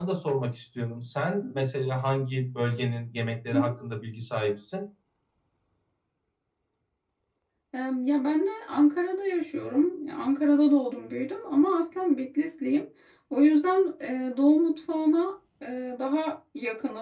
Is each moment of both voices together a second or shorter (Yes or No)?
Yes